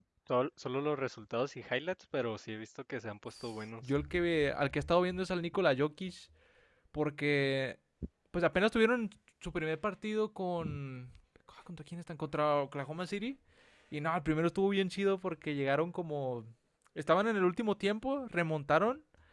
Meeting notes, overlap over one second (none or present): none